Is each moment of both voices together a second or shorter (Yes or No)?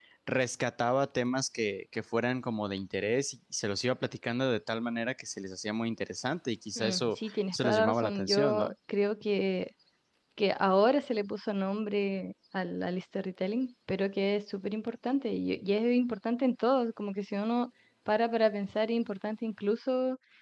No